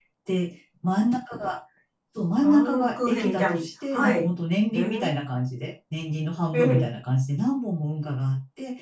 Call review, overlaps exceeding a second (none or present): present